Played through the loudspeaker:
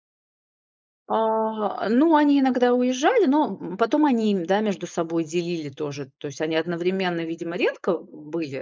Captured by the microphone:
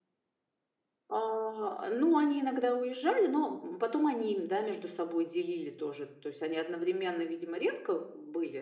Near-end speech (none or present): none